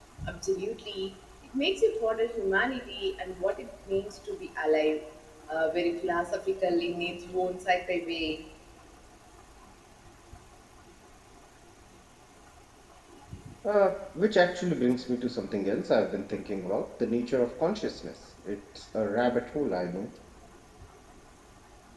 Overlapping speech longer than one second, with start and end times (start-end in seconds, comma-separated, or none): none